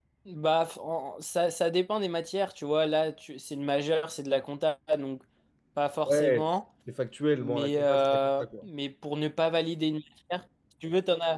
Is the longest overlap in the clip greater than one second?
Yes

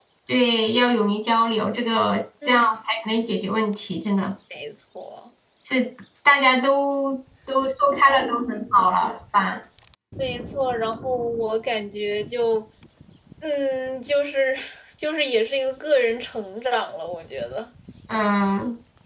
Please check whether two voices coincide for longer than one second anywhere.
No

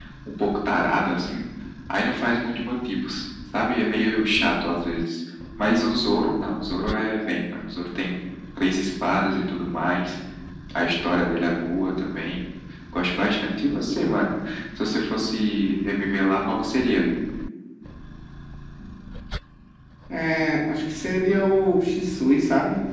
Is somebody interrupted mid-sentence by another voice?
No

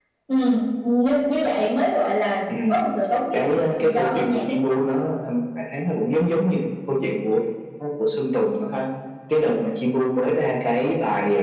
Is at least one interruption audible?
Yes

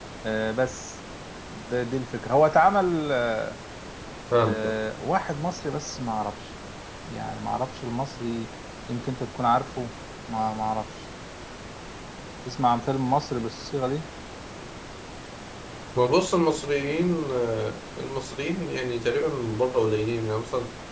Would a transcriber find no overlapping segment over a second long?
Yes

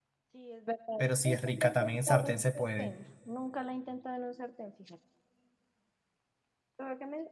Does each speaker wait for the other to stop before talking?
No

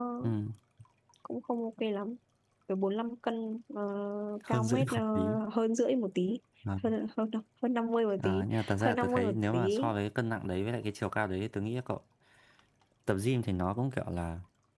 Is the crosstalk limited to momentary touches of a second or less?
No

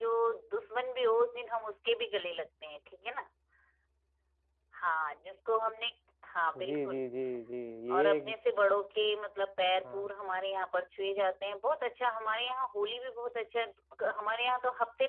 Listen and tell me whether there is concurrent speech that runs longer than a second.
No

